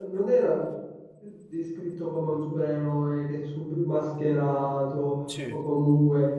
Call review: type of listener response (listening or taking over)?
listening